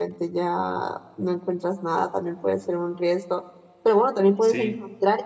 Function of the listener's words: listening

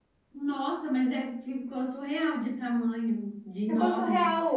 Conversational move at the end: taking over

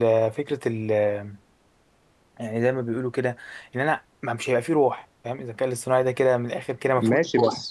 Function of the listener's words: taking over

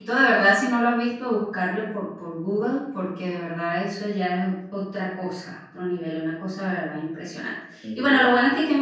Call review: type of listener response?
listening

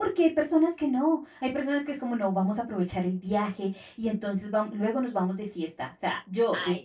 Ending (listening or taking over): listening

